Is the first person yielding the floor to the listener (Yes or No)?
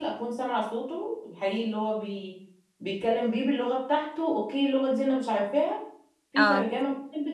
No